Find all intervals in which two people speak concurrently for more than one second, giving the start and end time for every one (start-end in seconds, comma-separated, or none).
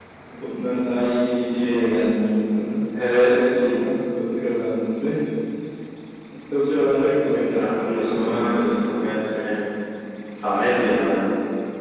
7.3-9.1